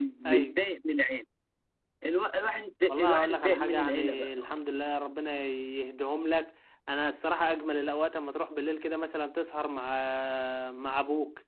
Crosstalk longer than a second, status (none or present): present